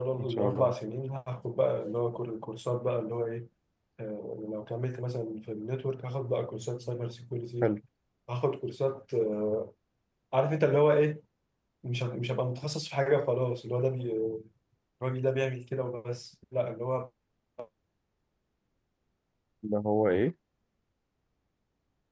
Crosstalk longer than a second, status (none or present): none